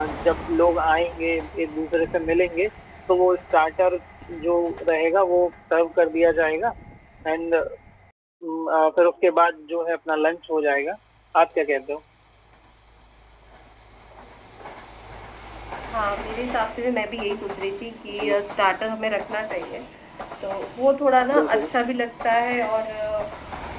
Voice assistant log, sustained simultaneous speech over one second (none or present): none